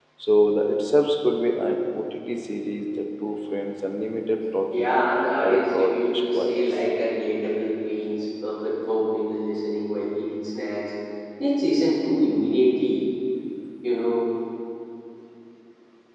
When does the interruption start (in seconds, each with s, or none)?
4.7 s